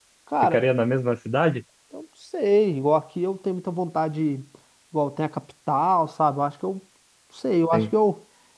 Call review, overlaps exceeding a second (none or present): none